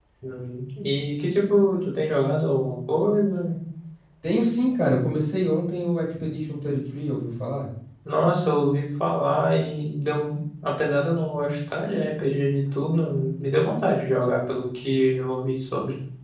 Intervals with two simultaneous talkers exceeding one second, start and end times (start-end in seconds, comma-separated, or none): none